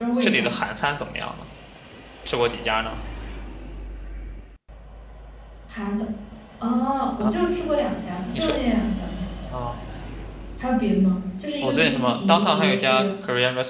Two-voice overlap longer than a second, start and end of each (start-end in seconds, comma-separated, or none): 11.6-13.0